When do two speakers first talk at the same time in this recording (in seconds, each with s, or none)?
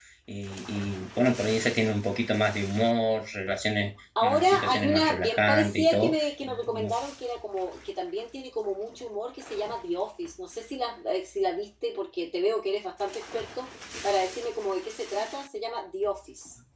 4.2 s